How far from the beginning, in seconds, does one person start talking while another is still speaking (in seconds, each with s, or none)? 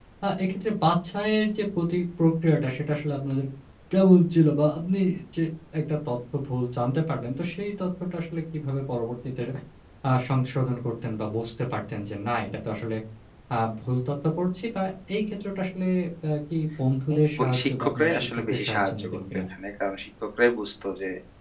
17.1 s